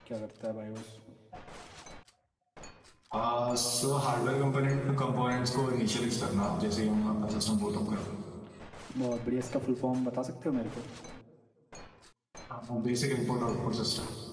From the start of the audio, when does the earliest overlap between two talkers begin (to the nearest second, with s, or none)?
none